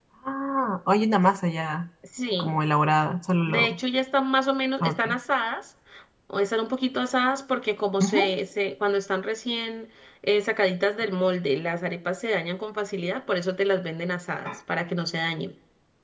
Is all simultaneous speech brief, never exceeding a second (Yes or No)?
Yes